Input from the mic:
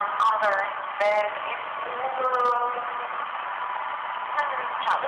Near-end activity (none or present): none